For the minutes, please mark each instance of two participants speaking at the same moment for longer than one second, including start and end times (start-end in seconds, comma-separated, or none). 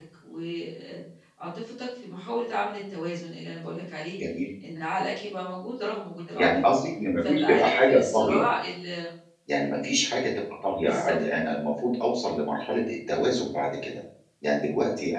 7.2-8.4